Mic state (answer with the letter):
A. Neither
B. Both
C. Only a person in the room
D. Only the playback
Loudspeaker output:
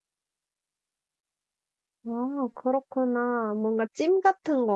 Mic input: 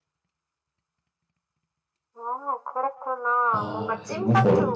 B